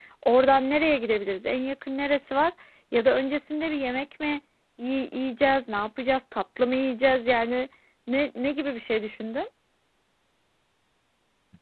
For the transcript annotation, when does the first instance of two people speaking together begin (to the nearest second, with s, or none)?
none